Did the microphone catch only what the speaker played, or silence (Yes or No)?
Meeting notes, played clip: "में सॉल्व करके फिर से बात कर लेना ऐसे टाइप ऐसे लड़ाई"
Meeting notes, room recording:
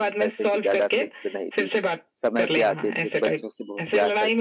No